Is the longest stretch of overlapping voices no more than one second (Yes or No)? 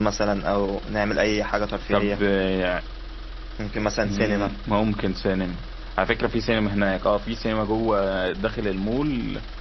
Yes